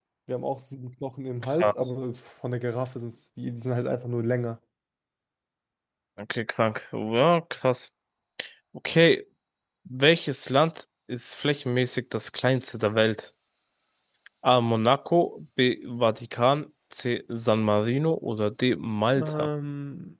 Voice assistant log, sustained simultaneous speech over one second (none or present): none